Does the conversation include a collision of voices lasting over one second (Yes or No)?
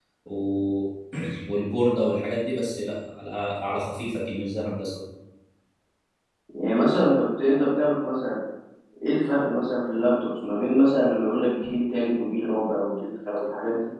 No